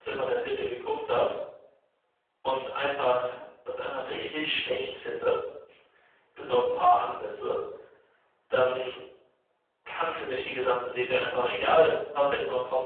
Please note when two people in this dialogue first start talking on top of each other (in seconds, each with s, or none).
none